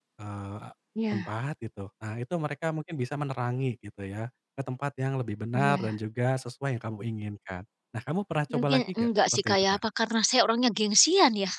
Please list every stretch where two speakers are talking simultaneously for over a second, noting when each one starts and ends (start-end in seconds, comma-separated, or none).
8.5-9.8